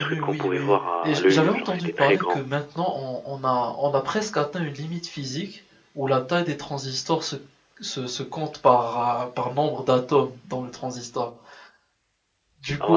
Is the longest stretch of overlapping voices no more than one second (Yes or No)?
No